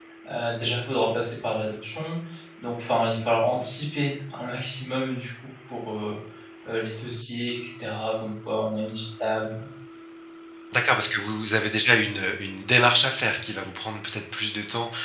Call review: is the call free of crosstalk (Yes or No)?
Yes